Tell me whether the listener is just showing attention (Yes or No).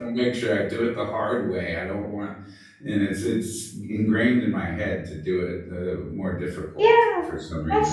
No